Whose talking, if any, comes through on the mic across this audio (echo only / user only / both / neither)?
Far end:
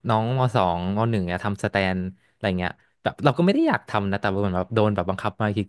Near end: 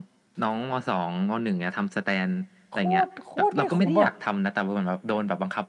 both